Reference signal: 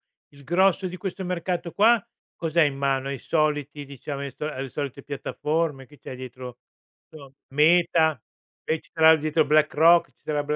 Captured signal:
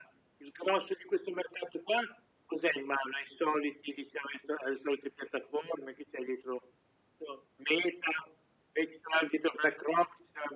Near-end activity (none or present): none